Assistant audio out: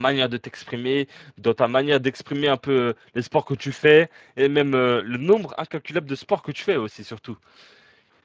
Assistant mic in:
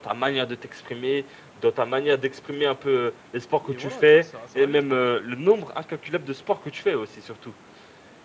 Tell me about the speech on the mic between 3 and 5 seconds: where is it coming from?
both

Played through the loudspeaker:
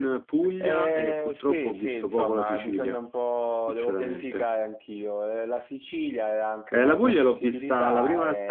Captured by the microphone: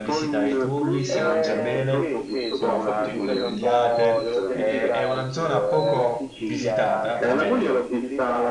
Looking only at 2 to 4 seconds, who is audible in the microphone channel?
both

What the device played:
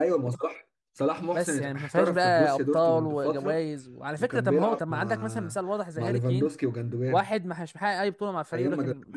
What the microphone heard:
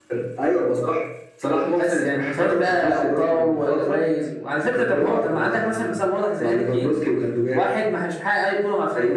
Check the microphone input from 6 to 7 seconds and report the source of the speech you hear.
echo only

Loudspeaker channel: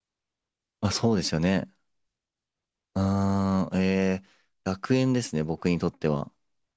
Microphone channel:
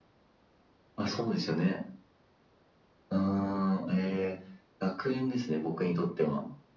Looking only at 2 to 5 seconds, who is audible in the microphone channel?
echo only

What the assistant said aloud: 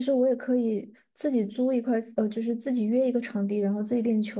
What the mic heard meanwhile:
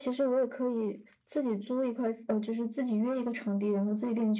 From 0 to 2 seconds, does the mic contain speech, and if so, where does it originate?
echo only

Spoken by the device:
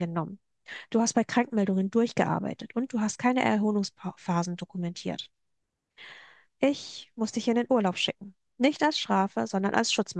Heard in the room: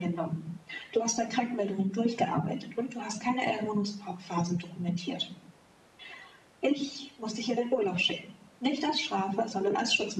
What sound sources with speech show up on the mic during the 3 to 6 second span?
echo only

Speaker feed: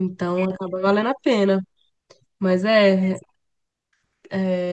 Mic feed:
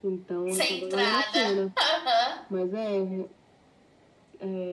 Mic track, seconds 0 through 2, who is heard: both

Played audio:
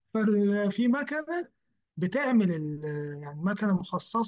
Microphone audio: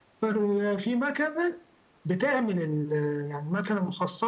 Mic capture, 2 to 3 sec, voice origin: echo only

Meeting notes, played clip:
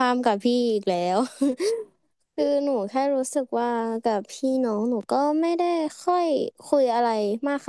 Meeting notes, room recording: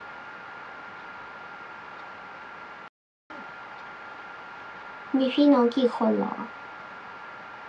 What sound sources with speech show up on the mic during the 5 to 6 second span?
user only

